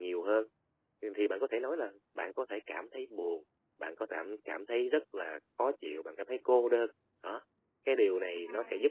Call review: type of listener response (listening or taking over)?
listening